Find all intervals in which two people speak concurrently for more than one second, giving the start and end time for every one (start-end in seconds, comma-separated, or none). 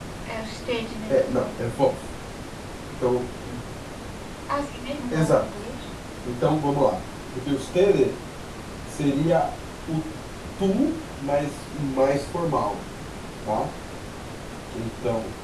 none